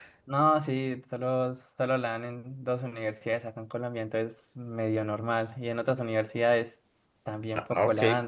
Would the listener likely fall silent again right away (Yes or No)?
No